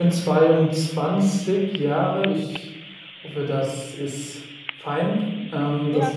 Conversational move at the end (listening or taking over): taking over